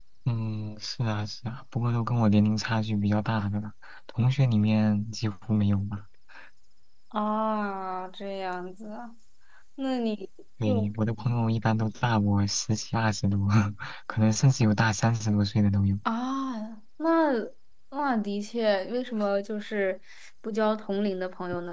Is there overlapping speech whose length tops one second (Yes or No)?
No